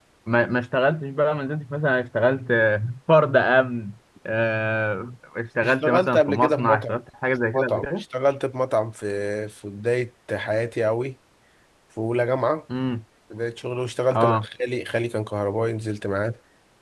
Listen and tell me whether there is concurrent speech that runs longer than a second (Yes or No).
Yes